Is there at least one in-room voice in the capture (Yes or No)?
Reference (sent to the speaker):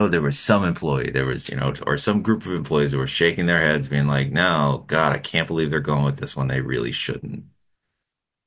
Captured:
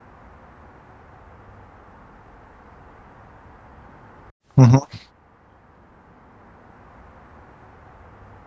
Yes